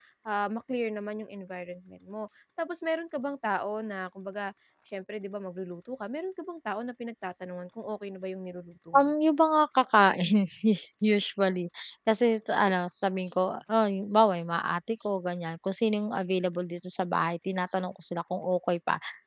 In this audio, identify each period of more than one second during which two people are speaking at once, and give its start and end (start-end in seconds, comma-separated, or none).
none